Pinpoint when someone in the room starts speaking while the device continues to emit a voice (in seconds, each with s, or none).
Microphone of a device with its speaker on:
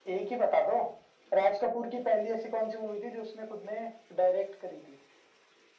none